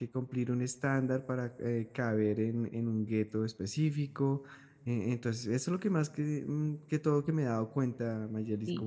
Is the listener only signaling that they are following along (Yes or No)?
No